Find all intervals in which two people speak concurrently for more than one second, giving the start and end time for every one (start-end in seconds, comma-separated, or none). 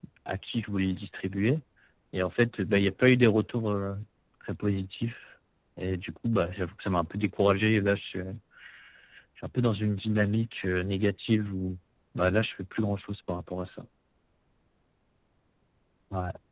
none